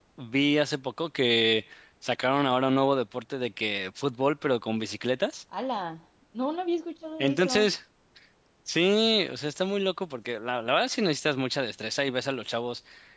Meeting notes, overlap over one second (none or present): none